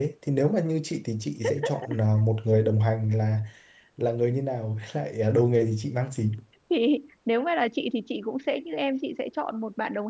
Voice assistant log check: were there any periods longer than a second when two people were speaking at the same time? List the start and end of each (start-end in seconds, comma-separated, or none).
none